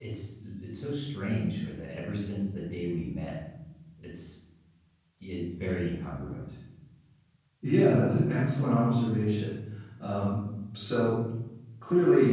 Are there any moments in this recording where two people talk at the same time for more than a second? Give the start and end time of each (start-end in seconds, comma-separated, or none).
none